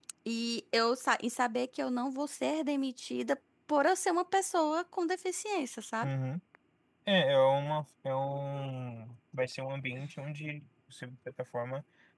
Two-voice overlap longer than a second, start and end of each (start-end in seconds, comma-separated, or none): none